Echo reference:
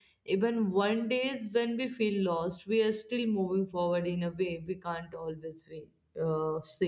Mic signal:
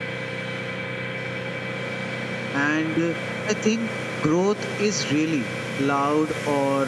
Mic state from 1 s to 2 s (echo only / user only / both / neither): neither